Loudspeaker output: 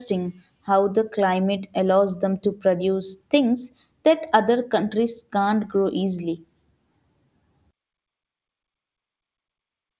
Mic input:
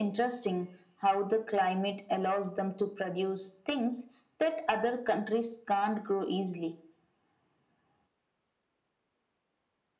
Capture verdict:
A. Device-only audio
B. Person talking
A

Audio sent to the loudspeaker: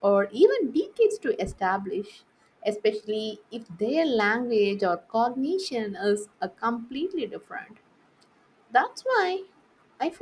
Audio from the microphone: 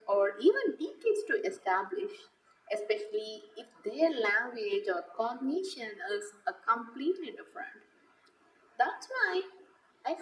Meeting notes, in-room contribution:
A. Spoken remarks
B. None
B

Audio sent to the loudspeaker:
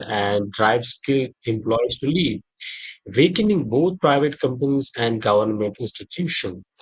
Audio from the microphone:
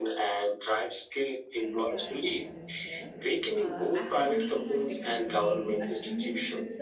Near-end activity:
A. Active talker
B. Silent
A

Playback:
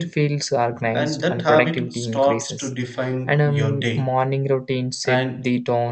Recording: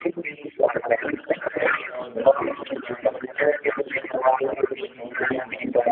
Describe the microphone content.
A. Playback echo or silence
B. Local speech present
B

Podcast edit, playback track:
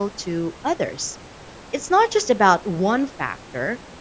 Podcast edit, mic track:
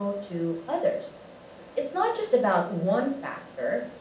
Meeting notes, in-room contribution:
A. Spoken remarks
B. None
B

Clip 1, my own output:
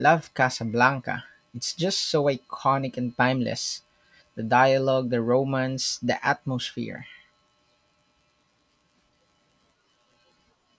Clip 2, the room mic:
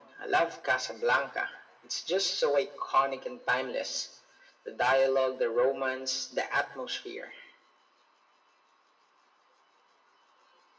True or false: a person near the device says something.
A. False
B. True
A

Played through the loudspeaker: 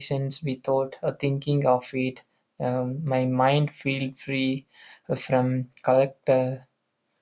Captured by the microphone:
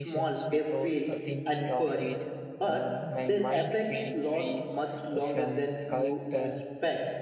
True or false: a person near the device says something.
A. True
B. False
A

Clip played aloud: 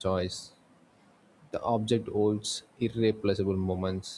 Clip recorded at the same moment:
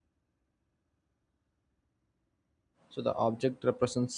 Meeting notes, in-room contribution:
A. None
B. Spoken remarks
B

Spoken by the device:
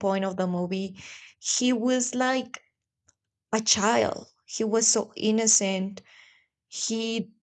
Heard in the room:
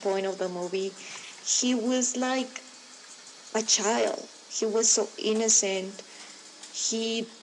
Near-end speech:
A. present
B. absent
B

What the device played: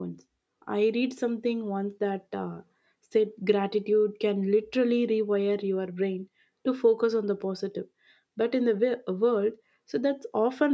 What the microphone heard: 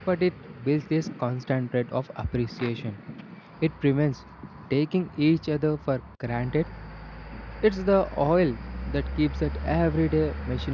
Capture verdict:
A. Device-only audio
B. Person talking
B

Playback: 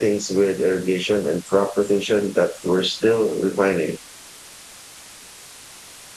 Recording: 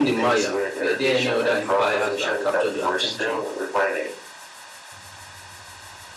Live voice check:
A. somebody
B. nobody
A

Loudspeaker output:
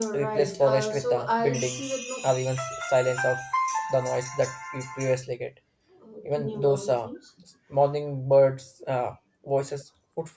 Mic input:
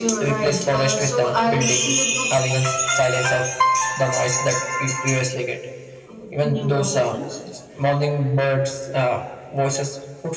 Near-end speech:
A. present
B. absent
B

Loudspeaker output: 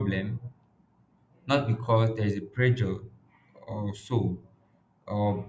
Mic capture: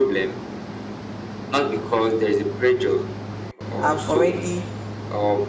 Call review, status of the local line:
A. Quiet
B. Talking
B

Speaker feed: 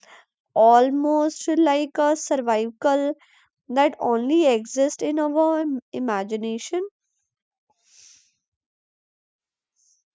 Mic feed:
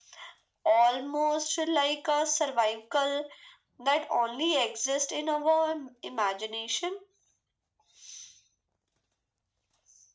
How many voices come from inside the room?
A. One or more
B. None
B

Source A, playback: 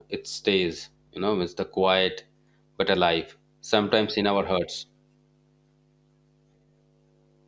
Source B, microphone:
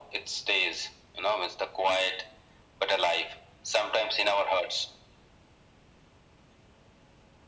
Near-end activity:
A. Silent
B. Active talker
A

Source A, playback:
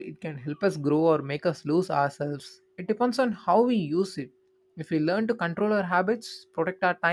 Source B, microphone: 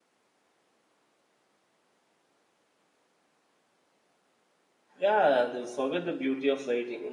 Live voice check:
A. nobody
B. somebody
B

